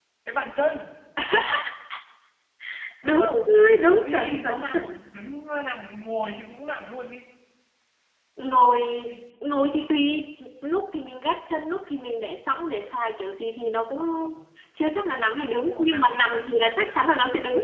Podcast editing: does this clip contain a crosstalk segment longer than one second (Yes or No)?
Yes